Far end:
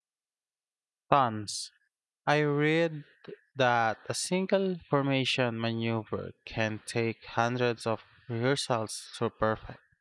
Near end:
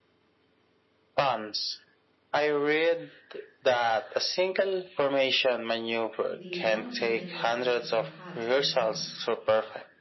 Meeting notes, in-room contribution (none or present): present